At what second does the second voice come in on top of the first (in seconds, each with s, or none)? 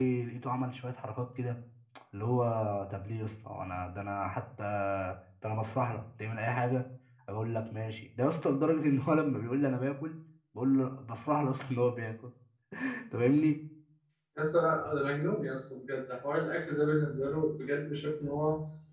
none